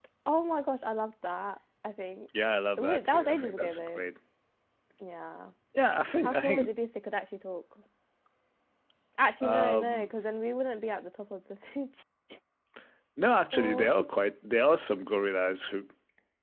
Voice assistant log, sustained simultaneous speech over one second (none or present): present